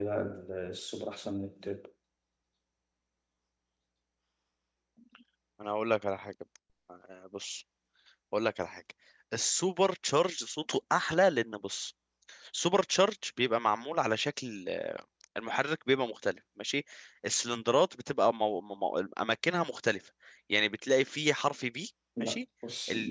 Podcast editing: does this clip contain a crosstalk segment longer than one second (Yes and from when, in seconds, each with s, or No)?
No